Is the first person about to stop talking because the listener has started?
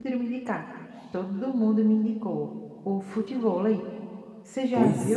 Yes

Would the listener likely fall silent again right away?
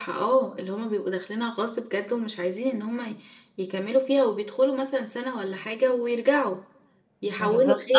No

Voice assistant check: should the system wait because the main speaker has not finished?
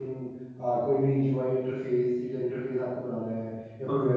Yes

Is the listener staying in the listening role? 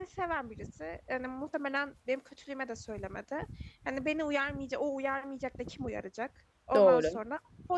Yes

